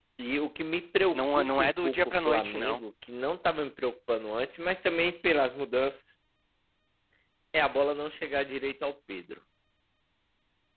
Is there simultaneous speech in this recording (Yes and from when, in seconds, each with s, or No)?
Yes, from 1.1 s